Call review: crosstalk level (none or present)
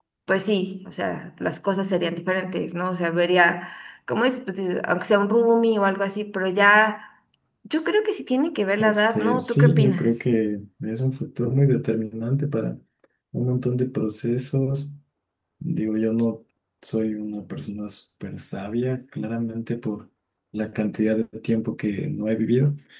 present